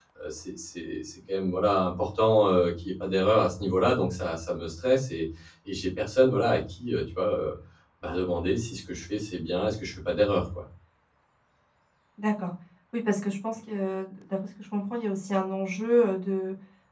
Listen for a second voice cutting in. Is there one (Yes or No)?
No